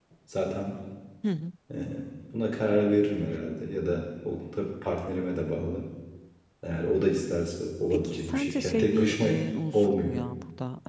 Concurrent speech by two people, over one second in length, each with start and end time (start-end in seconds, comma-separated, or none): 7.9-9.2